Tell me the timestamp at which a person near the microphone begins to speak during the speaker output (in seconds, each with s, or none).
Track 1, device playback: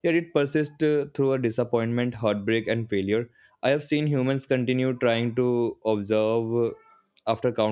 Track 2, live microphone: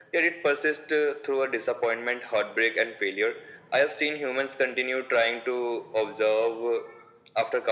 none